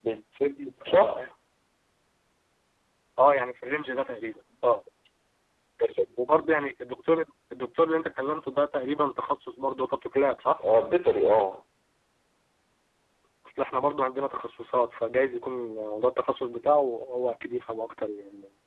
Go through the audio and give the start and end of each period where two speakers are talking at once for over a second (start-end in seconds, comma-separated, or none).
none